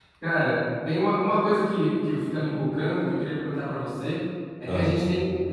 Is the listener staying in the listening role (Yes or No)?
Yes